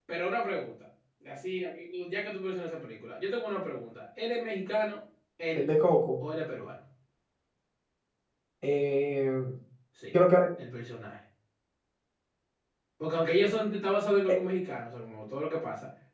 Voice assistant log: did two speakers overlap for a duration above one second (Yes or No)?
No